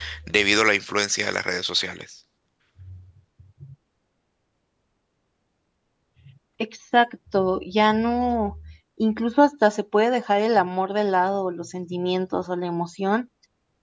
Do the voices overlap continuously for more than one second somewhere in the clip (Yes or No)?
No